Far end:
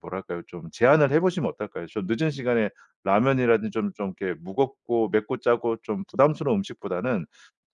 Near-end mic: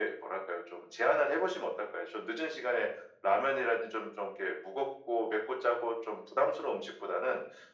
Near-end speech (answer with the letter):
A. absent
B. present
A